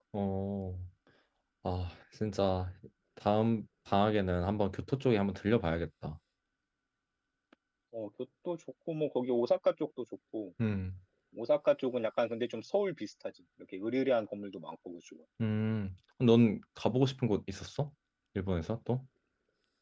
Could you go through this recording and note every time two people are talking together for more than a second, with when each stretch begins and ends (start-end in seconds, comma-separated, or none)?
none